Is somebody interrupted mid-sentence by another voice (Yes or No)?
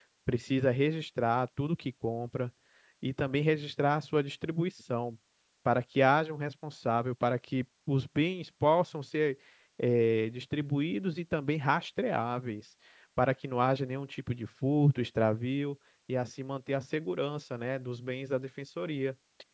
No